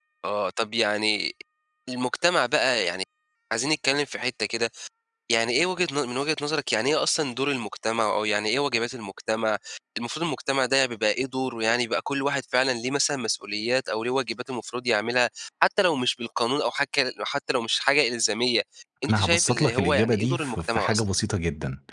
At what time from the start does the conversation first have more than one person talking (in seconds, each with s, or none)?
19.1 s